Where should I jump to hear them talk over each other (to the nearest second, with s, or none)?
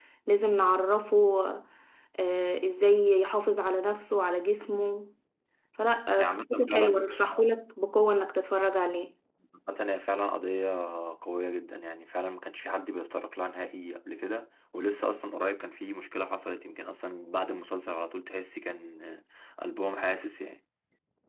6 s